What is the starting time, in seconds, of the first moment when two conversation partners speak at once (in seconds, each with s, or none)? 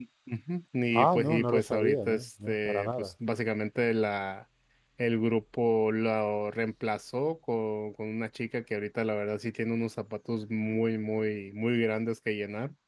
0.9 s